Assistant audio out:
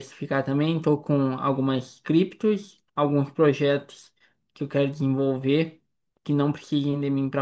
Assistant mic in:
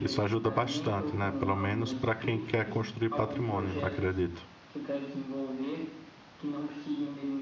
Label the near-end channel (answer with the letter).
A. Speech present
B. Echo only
A